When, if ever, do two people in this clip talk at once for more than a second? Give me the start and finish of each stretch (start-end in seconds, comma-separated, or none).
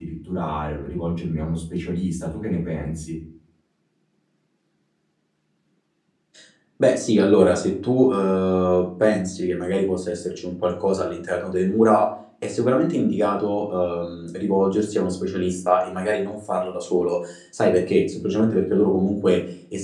none